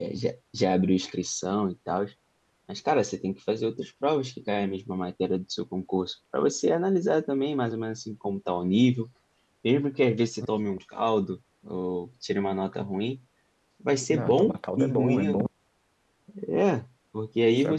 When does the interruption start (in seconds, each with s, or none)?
14.1 s